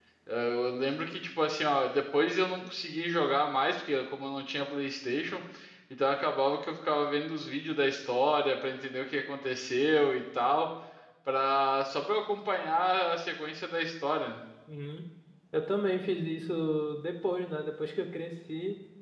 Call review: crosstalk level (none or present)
none